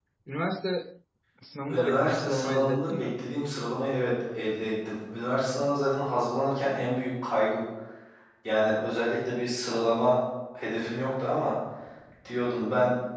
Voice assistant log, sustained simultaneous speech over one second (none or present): present